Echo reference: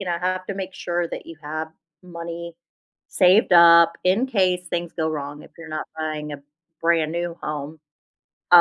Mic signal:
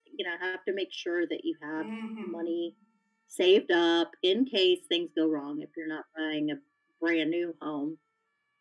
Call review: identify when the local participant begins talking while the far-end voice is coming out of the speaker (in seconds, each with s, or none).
1.8 s